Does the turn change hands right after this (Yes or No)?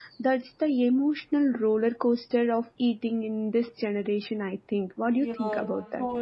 Yes